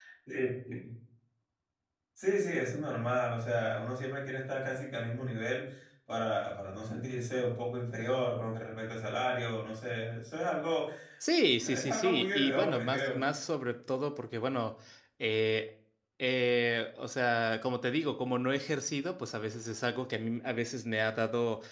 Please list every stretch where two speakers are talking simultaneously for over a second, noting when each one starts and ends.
11.6-13.3

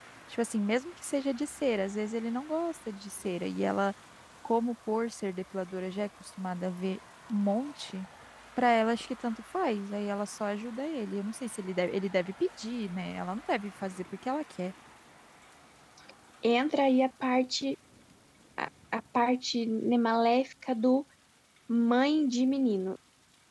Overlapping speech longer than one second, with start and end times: none

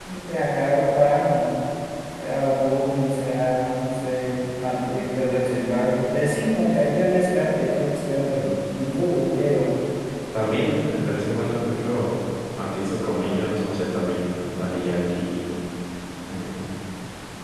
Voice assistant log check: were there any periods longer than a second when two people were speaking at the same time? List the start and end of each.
none

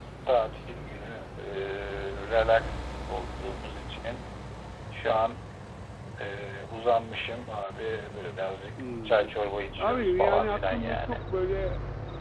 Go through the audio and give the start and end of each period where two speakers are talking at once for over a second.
9.8-11.1

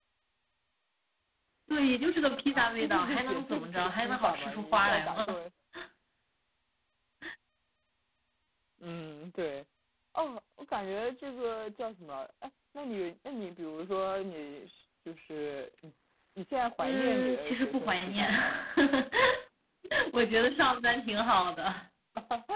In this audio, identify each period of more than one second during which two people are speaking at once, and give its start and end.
2.5-5.4, 16.8-18.3

